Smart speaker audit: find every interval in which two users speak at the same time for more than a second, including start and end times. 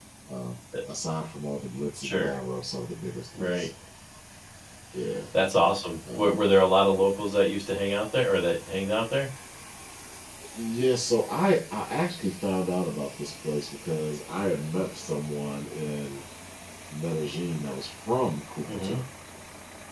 none

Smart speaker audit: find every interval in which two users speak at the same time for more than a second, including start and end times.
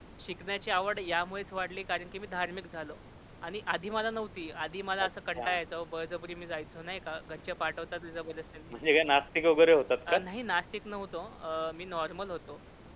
none

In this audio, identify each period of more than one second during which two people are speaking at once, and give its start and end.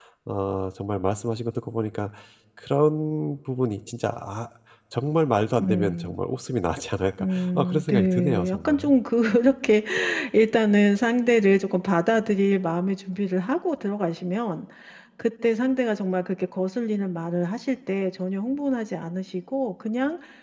7.2-8.9

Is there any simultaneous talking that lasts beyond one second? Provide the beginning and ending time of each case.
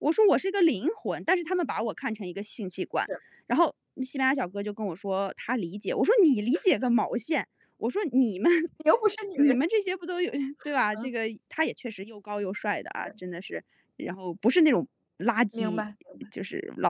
none

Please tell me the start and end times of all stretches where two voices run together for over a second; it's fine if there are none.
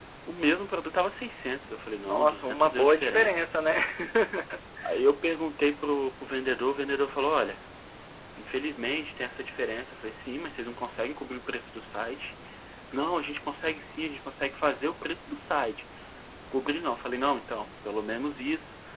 2.0-3.3

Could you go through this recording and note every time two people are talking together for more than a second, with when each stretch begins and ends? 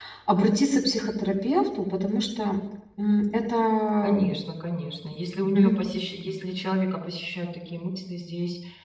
none

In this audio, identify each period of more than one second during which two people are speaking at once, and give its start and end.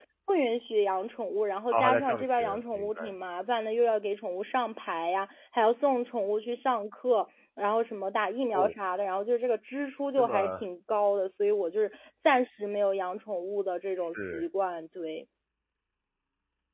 1.7-3.0

